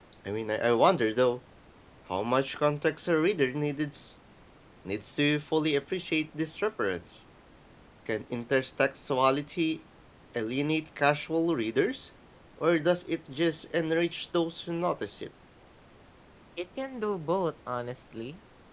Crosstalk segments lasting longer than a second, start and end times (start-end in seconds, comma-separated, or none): none